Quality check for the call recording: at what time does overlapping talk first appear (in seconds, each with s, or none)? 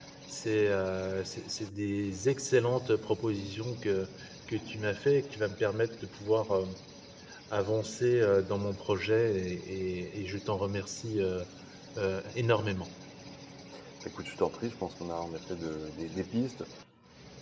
none